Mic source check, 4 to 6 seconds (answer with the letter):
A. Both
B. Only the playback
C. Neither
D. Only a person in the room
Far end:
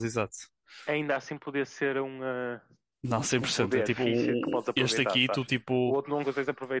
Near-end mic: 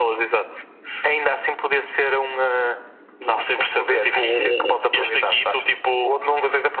B